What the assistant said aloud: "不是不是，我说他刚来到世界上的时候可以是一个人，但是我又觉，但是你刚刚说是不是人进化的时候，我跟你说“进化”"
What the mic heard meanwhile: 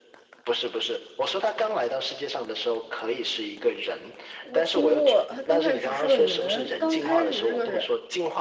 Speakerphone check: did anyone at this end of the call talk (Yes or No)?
Yes